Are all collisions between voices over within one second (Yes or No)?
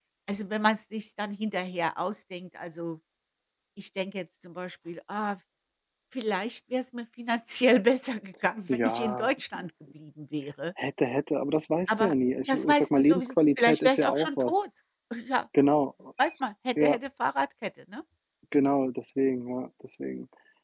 No